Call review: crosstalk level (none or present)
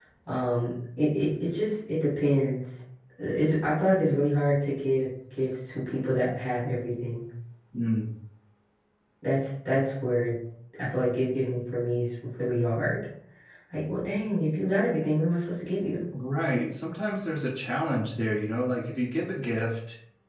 none